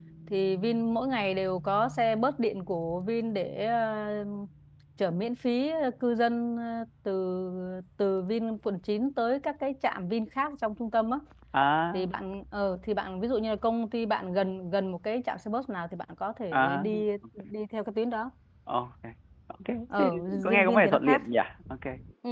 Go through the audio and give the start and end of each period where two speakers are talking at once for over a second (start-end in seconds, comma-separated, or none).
20.0-21.2